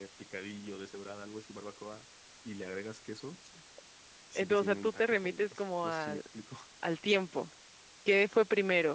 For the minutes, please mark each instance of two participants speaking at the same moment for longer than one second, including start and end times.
4.4-6.2

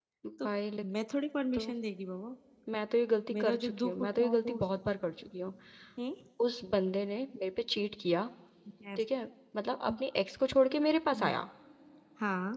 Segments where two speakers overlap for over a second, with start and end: 3.3-4.6

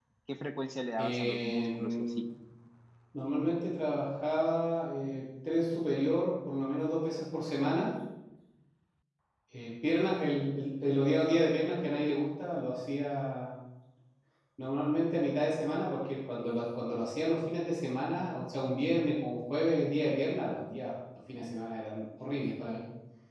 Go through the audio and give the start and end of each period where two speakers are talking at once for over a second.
1.0-2.2

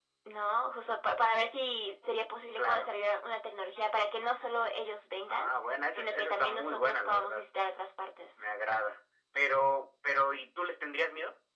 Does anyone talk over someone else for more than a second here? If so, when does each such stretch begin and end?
5.9-7.4

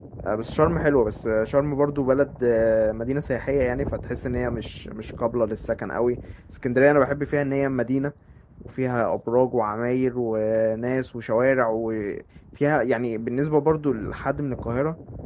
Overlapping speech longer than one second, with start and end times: none

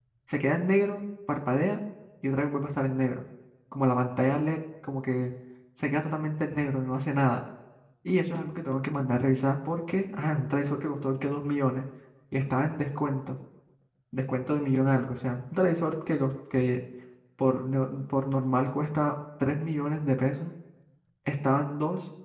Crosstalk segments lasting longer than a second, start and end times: none

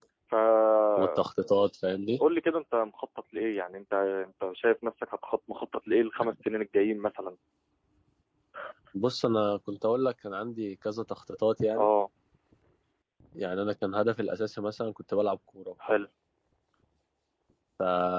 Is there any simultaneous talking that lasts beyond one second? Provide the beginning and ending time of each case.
none

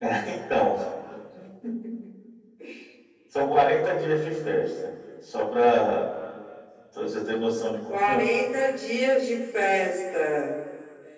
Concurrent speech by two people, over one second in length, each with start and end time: none

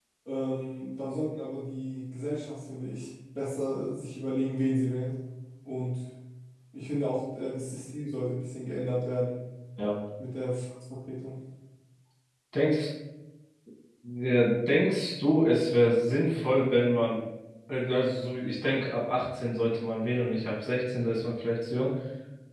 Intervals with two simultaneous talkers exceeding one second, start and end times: none

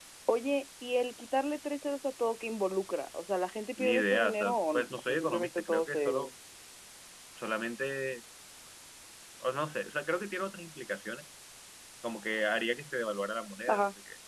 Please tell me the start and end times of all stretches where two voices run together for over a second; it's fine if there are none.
3.8-6.2

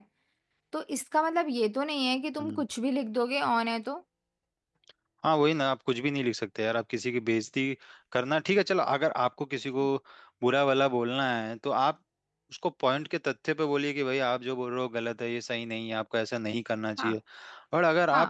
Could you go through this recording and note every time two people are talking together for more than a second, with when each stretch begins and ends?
none

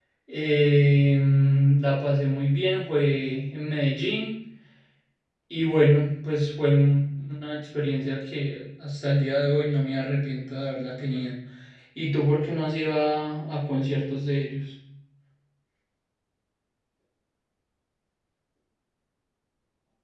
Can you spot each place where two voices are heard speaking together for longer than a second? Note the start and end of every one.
none

